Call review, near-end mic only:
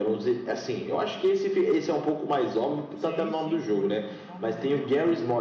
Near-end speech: present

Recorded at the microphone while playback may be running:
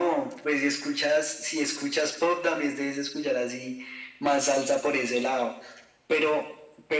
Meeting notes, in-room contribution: none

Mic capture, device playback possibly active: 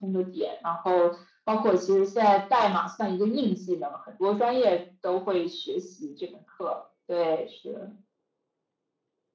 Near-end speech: none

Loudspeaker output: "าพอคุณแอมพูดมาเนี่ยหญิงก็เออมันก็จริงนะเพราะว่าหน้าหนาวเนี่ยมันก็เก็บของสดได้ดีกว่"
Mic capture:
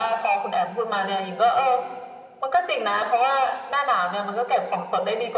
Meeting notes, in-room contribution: none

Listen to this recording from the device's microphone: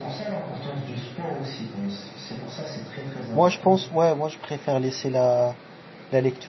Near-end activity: present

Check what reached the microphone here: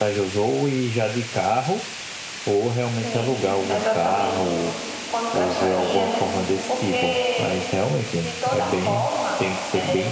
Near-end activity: present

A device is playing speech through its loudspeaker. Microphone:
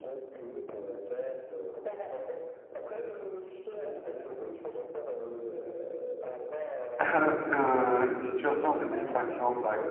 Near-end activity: present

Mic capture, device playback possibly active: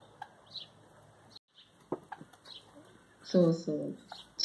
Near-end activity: present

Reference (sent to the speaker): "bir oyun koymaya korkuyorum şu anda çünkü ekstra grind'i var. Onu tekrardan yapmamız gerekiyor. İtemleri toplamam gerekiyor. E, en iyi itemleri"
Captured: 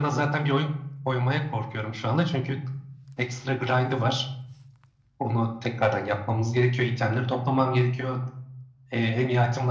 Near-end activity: none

